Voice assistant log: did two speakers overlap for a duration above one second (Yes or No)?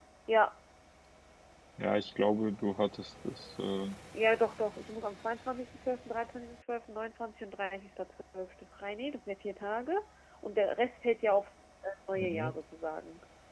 No